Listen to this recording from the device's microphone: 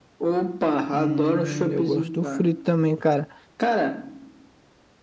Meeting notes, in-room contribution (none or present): present